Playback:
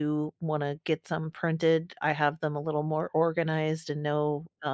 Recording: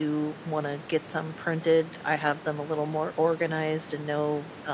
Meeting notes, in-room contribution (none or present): none